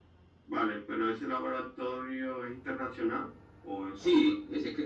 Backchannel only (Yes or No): No